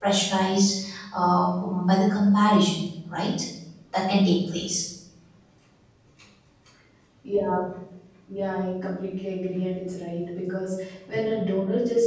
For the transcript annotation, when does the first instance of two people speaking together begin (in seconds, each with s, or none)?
none